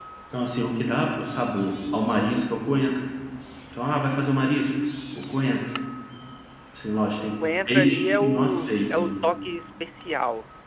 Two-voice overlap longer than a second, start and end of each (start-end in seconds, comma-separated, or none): 7.6-9.1